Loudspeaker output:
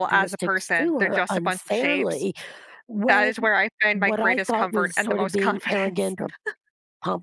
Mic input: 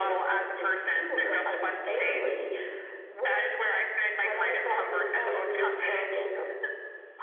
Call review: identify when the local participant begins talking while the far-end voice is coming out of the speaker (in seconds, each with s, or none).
5.1 s